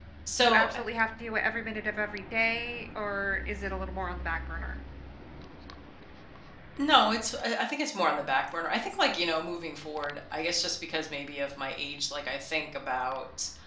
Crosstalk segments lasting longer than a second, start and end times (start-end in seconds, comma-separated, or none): none